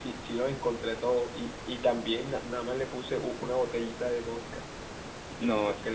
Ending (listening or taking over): taking over